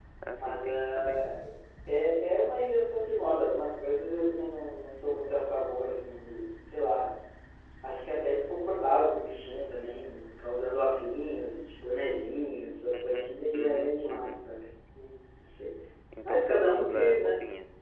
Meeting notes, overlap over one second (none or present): present